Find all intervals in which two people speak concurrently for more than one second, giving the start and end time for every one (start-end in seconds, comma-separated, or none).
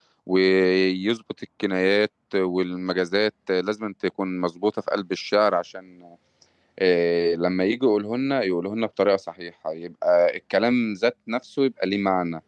none